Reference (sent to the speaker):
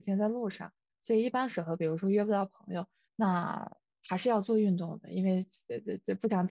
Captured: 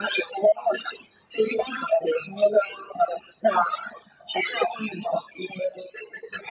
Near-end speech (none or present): none